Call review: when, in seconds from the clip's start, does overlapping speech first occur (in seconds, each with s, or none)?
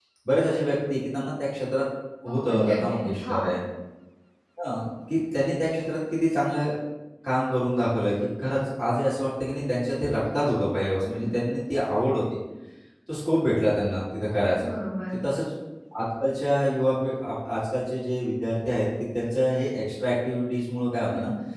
2.3 s